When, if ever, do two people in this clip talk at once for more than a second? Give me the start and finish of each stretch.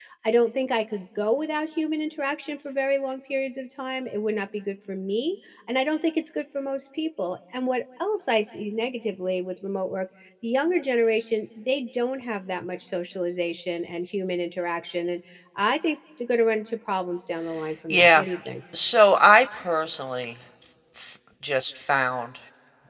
none

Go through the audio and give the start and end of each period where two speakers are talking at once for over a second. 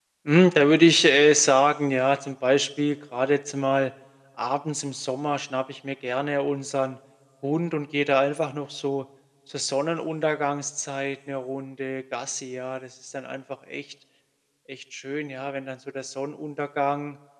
none

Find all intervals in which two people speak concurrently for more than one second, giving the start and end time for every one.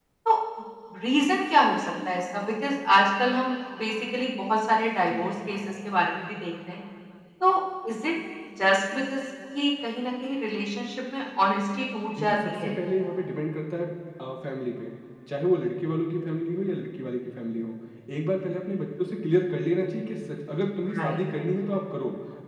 none

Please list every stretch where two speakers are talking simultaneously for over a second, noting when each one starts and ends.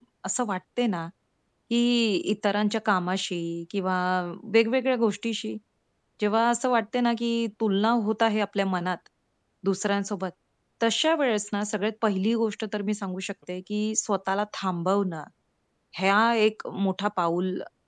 none

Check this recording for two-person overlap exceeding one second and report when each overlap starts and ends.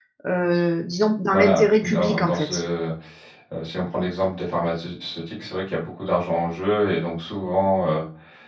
1.3-2.5

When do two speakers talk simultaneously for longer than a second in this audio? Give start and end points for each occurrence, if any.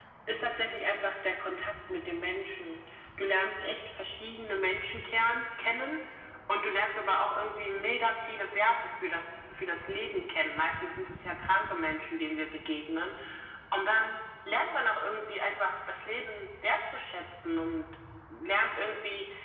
none

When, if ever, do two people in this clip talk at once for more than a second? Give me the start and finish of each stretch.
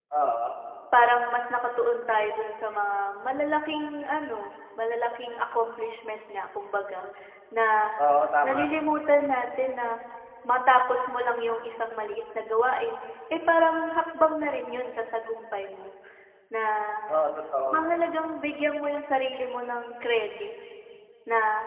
none

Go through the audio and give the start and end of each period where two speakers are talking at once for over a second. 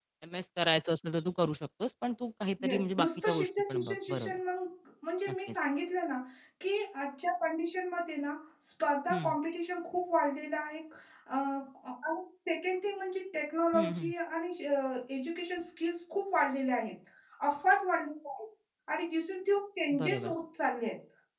2.6-4.4

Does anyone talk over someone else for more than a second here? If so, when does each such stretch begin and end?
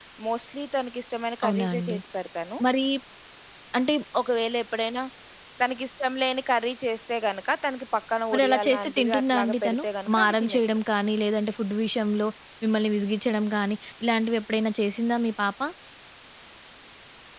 8.3-10.6

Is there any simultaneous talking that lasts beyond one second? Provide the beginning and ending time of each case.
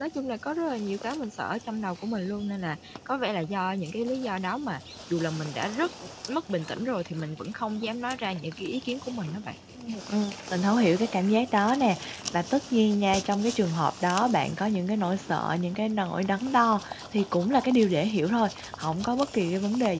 none

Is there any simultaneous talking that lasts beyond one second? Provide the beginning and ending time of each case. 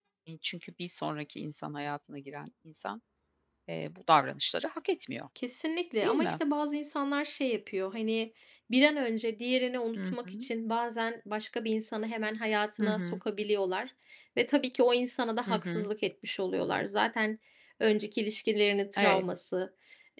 none

